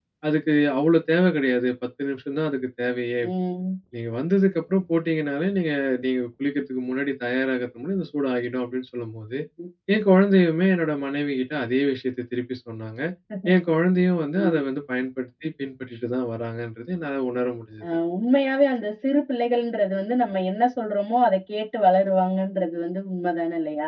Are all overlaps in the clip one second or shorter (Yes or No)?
Yes